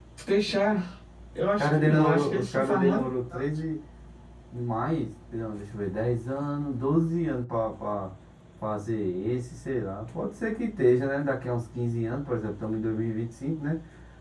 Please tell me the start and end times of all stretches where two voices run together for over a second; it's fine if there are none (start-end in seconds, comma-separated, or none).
1.6-3.1